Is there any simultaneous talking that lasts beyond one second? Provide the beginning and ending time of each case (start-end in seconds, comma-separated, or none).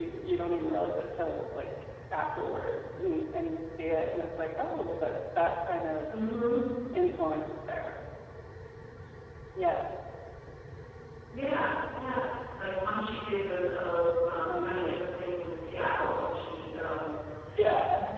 none